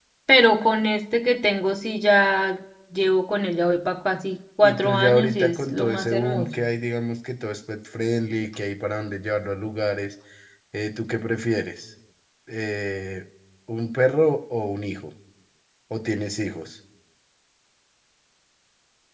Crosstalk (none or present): present